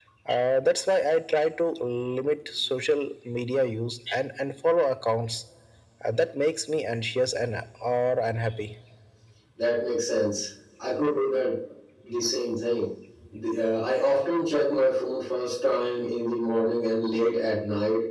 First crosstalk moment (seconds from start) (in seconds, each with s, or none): none